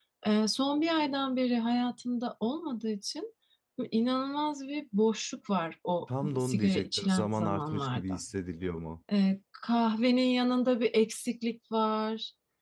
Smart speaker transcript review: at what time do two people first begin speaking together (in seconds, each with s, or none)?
6.1 s